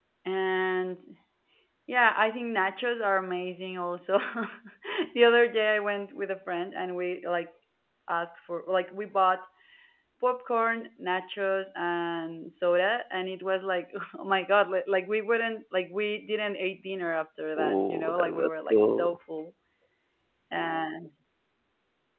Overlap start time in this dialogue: 17.6 s

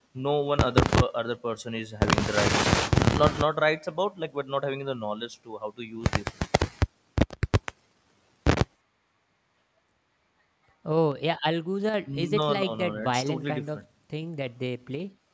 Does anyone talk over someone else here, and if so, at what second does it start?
12.1 s

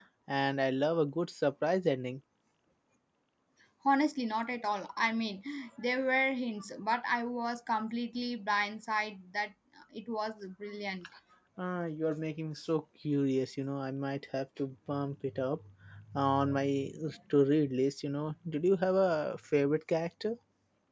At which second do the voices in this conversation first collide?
none

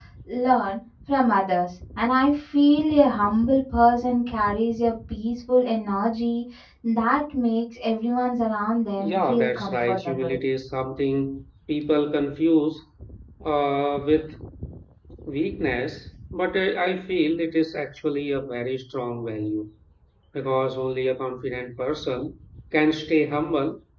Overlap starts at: 9.0 s

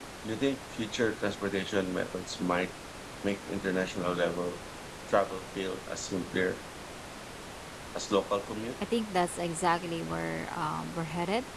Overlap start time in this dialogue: none

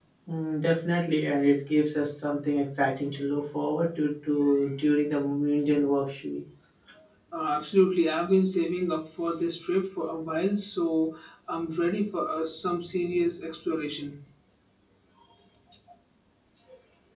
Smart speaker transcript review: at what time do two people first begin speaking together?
none

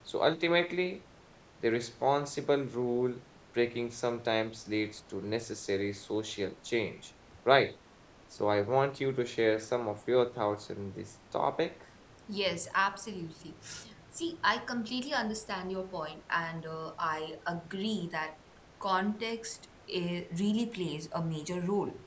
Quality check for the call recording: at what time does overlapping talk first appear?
none

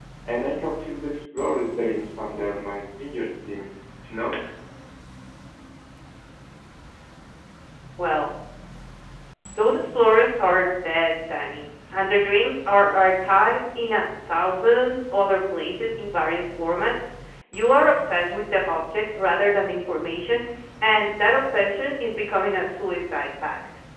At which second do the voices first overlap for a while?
none

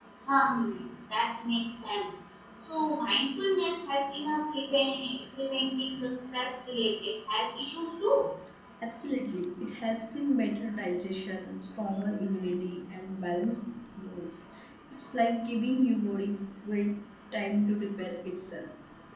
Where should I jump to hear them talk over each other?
none

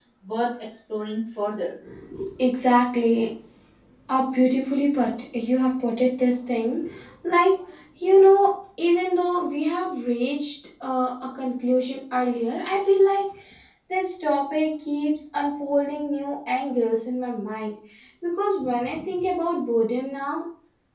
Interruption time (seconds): none

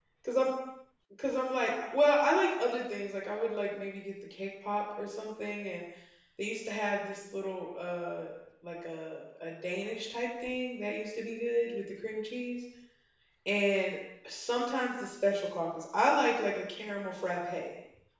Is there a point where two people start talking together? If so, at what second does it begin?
none

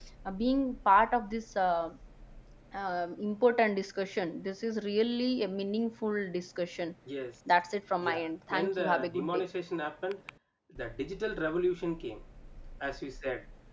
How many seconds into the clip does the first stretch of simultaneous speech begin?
8.0 s

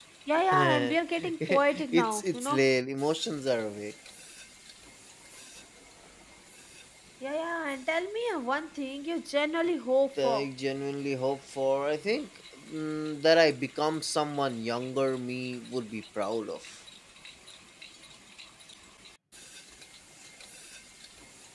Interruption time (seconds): 0.5 s

